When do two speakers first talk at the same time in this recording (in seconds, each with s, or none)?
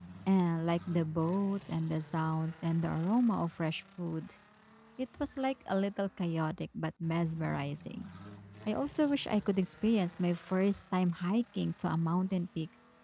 none